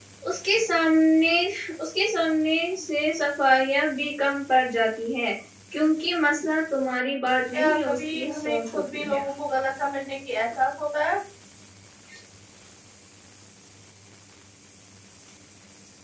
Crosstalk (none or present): present